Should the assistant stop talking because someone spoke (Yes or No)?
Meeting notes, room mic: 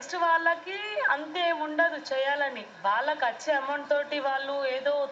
No